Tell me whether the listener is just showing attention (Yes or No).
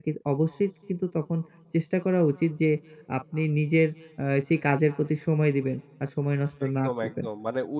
No